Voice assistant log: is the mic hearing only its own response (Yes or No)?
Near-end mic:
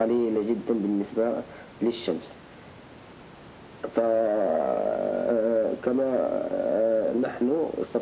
Yes